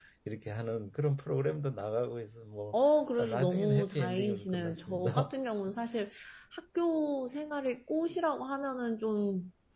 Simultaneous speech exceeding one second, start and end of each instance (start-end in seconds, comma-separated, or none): 3.2-5.3